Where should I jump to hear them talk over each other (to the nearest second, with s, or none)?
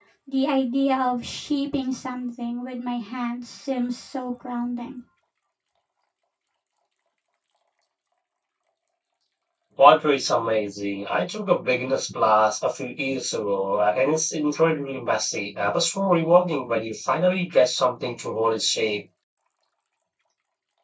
none